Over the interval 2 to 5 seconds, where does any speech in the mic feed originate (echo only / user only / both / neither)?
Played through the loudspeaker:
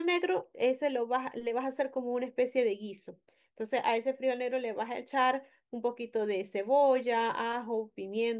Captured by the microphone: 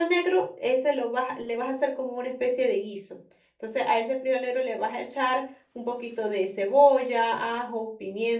echo only